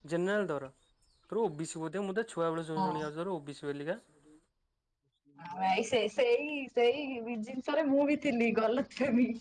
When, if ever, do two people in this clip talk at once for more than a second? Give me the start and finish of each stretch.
none

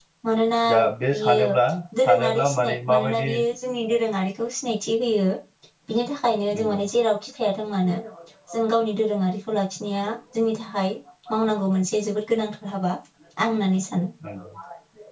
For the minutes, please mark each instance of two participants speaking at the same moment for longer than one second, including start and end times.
2.0-3.3

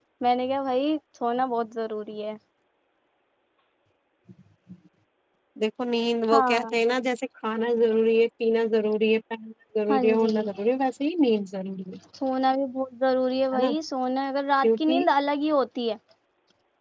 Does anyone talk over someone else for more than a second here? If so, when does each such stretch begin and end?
none

